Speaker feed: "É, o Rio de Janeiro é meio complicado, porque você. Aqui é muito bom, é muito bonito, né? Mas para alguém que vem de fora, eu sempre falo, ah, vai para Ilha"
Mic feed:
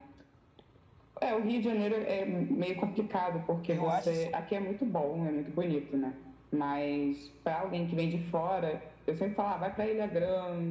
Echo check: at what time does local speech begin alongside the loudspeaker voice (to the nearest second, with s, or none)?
4 s